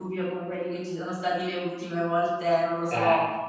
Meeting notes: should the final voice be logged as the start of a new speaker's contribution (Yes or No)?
No